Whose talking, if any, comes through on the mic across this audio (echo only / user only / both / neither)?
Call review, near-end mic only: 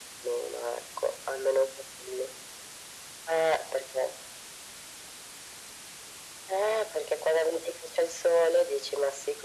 echo only